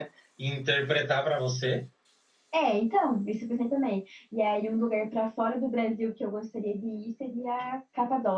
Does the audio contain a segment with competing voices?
No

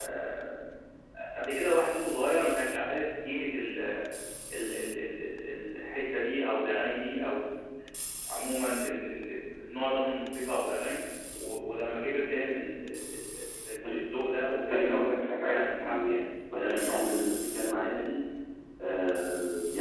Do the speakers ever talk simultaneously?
Yes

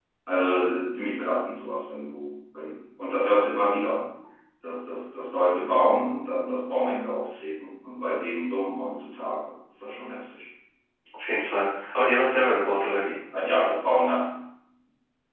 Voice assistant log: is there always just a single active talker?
Yes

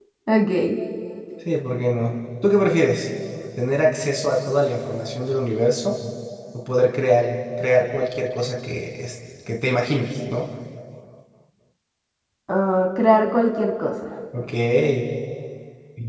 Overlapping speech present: No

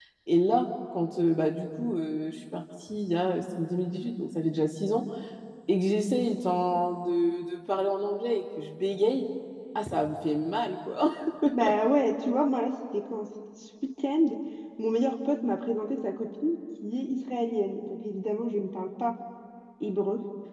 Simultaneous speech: No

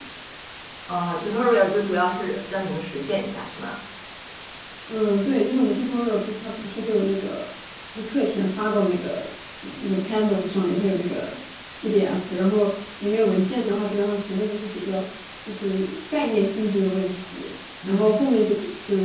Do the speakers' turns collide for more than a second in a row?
No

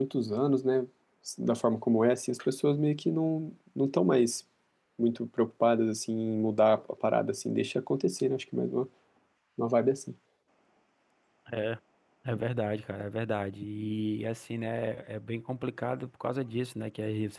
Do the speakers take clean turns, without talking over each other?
Yes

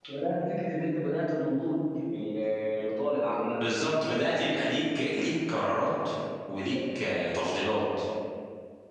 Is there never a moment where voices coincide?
Yes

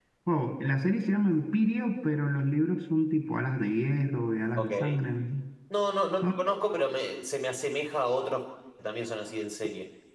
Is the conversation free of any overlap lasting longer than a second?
Yes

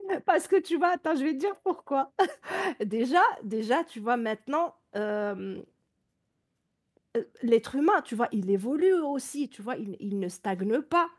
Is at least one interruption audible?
No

